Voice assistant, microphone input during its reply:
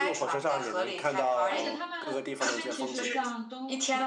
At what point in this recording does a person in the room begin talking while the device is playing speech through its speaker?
1.5 s

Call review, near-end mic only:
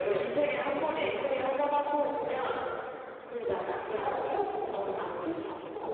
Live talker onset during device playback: 4.0 s

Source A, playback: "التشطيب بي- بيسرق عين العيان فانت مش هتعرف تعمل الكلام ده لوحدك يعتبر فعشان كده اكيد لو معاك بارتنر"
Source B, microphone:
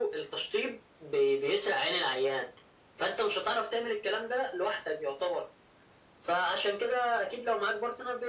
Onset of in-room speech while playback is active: none

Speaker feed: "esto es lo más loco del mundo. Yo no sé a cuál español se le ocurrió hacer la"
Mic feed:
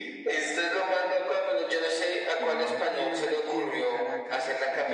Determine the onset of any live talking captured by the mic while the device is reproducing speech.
2.4 s

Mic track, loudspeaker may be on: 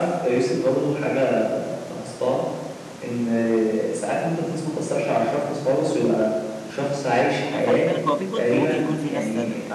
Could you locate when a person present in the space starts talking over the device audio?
7.6 s

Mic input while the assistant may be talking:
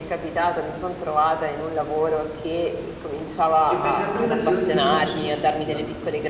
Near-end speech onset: 3.6 s

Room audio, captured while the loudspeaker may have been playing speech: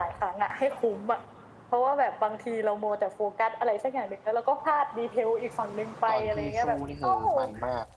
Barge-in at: 6.0 s

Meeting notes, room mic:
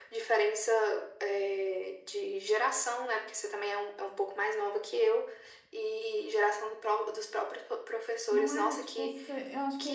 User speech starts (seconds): 8.3 s

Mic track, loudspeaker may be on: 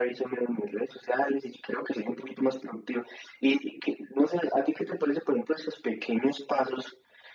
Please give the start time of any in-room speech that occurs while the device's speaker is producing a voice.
none

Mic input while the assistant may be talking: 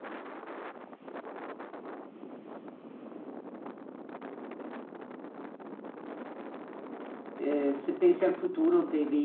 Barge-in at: 7.4 s

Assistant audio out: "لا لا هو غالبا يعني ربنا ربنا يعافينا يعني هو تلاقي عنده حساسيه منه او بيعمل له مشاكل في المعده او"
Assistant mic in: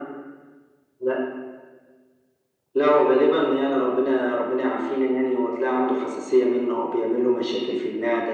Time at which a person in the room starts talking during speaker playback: none

